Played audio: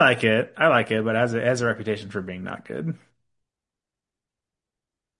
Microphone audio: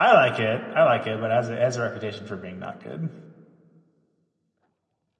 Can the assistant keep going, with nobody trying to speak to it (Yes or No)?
Yes